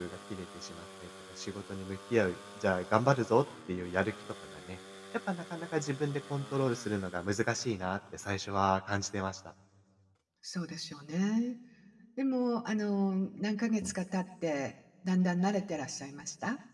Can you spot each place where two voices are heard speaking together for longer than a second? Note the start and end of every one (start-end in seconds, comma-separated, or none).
none